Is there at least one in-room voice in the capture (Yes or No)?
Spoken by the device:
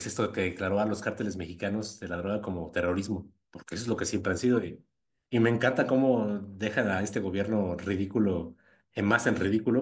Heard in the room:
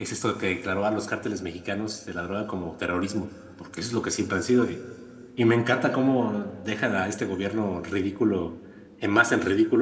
No